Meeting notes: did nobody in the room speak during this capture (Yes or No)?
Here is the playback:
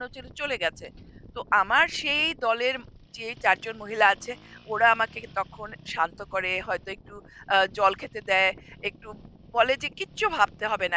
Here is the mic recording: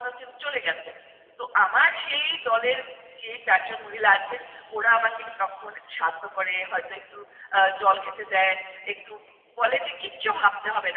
Yes